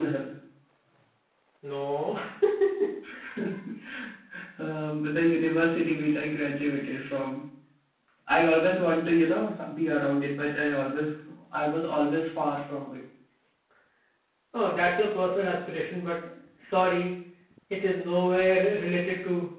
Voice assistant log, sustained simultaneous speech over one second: none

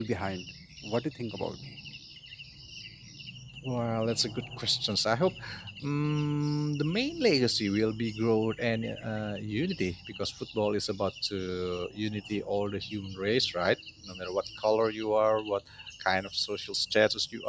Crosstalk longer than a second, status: none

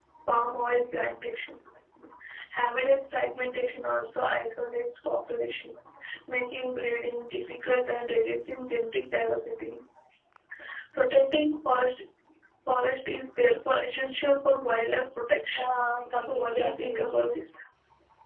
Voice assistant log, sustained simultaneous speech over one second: present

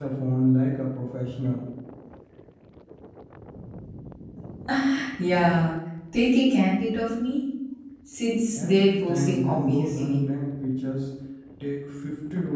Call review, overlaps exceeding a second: present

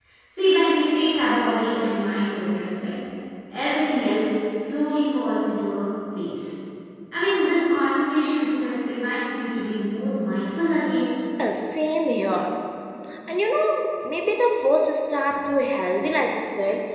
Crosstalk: none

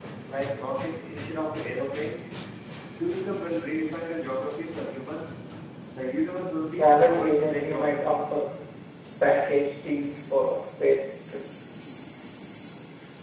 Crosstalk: present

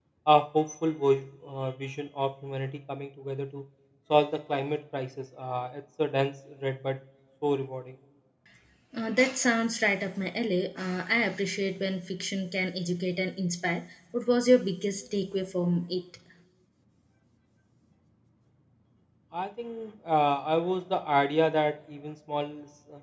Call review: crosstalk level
none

